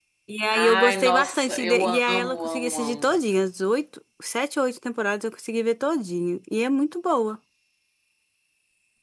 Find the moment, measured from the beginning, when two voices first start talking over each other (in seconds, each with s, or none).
0.5 s